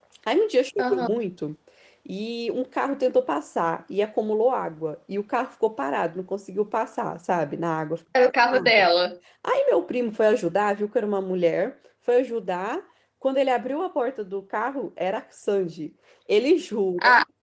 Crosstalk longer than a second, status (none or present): none